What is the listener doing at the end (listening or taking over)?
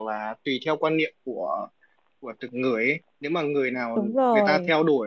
listening